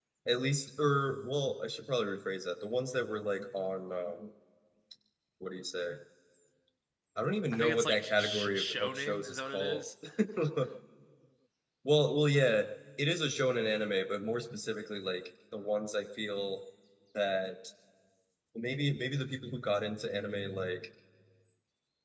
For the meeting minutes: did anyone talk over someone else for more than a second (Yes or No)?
Yes